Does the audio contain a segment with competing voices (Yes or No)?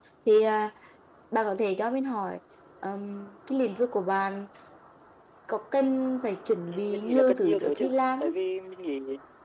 Yes